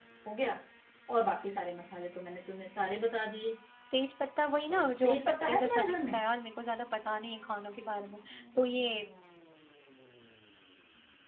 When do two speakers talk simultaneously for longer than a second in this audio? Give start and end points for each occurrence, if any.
4.7-6.1

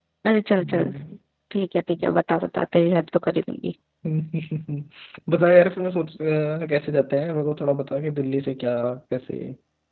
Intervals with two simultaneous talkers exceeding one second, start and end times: none

